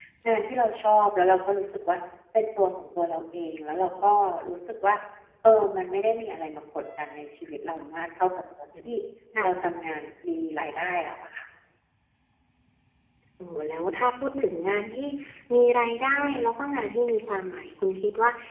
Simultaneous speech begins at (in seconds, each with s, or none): none